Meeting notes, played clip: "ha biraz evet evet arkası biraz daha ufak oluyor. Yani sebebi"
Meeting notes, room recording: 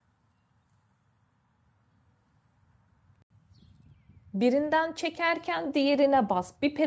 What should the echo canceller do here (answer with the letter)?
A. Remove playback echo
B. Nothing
B